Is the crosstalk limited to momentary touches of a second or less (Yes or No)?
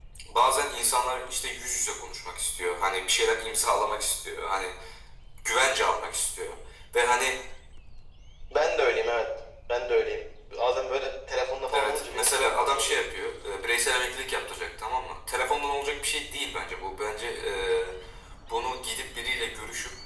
No